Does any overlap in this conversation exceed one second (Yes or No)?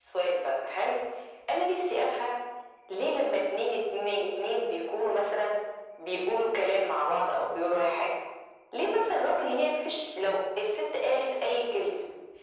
No